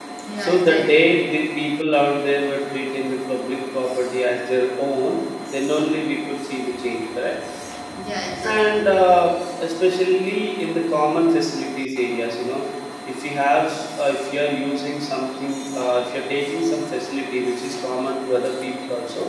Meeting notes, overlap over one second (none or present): none